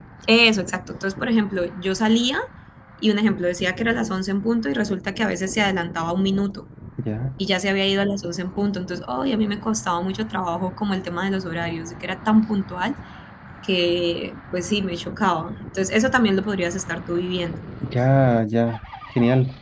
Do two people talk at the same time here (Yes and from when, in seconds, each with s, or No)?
No